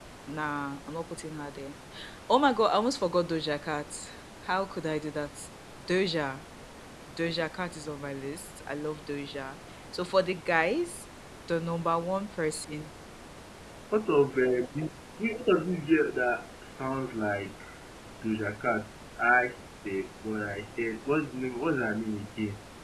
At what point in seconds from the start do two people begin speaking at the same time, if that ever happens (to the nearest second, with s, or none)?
none